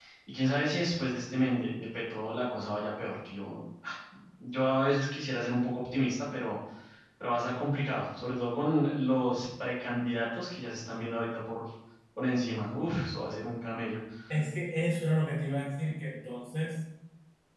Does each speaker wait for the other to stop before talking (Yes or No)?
Yes